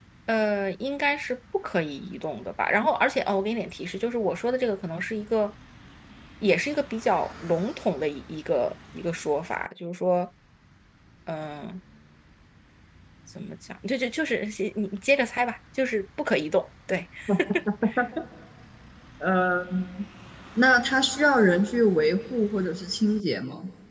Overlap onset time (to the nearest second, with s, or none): none